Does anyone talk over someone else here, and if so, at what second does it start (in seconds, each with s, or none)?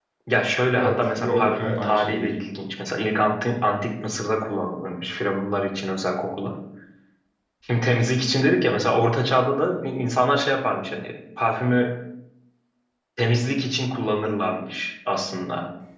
0.7 s